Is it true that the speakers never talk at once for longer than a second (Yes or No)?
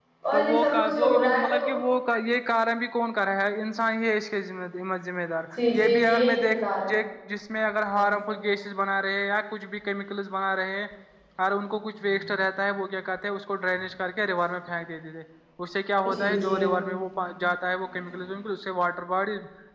No